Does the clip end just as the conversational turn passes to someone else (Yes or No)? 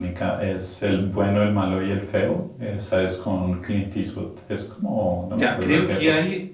Yes